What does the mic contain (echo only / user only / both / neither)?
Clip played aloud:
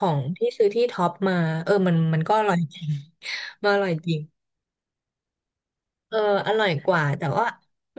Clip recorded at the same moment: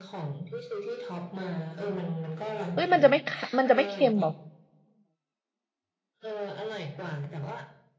both